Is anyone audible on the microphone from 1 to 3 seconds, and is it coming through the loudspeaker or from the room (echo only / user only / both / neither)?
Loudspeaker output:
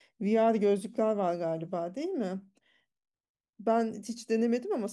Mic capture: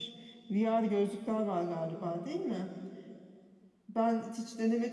echo only